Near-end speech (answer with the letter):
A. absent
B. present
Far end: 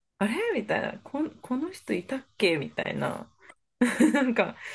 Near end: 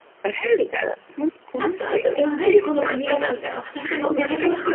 B